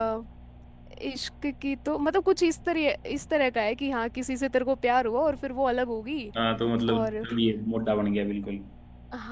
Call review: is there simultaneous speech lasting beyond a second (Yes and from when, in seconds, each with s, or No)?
No